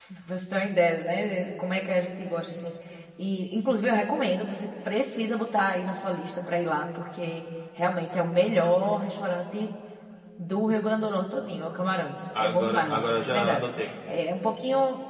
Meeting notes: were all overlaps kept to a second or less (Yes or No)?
No